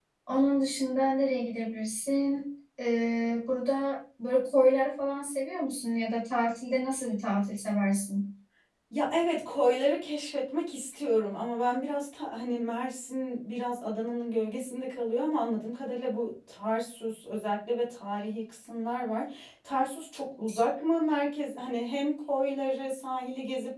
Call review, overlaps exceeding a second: none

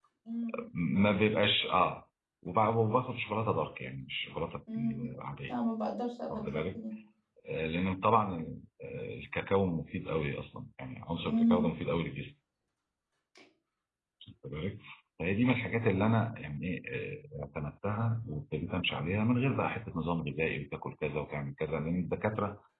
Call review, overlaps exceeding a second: none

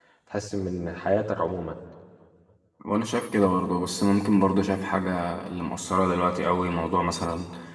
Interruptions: none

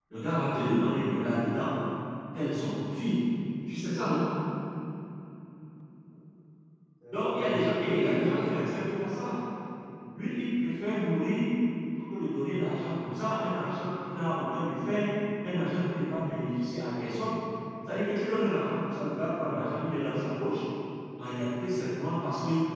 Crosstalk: present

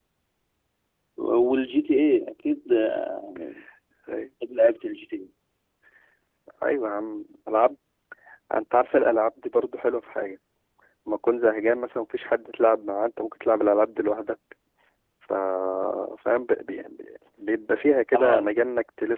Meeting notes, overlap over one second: none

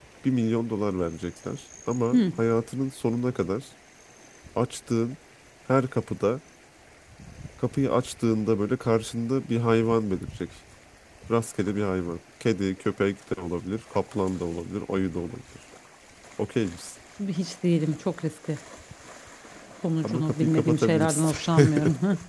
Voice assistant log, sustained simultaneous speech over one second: present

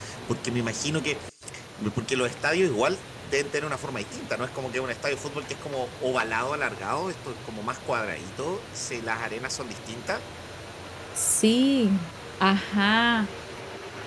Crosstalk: none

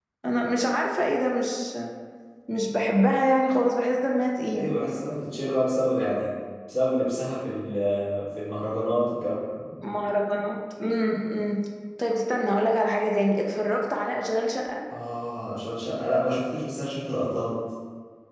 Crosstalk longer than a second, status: none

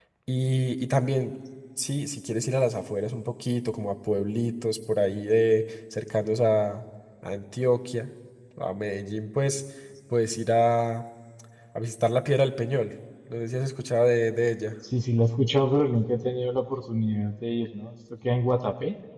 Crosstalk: none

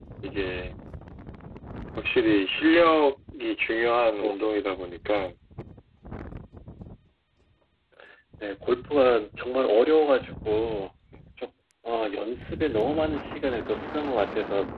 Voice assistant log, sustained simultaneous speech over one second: none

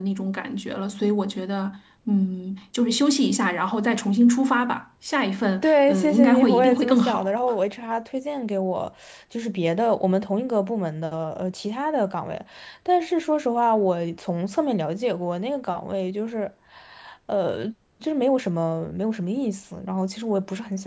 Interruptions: present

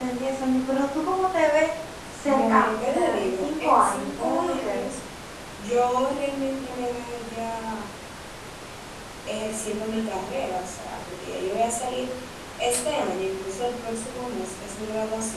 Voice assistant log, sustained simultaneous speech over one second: present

